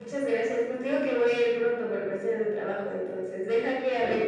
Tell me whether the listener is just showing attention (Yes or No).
Yes